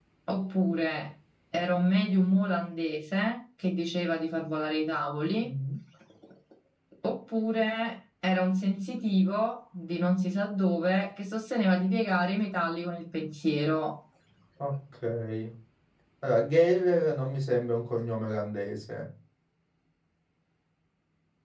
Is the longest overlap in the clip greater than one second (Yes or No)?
No